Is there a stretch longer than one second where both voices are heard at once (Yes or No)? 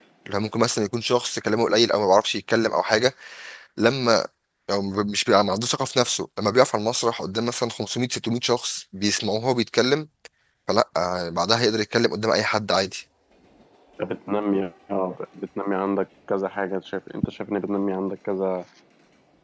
No